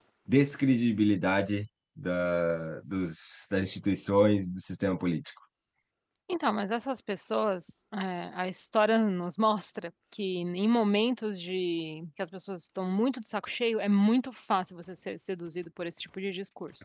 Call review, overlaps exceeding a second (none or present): none